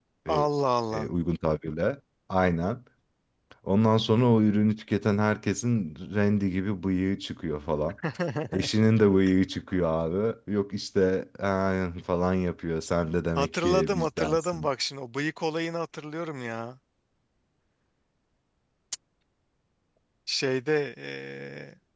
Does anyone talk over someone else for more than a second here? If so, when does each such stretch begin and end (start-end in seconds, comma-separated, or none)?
13.3-14.7